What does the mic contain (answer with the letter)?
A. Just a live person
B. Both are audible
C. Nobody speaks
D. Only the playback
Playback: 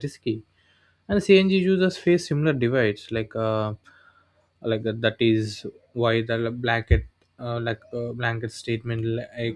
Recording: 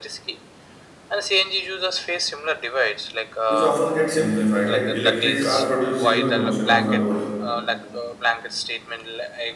B